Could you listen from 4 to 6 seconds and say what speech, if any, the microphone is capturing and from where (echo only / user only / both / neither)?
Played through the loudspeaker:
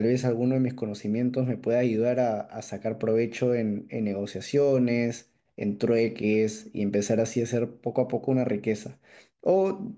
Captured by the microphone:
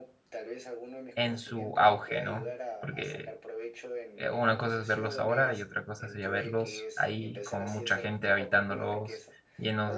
both